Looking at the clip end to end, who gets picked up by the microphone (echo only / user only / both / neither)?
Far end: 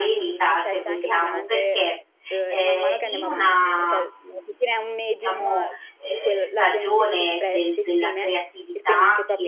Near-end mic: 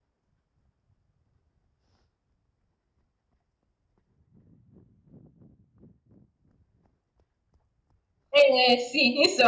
user only